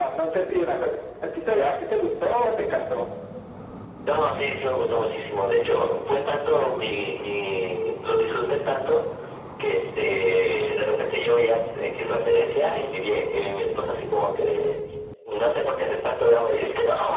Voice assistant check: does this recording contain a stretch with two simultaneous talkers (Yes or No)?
No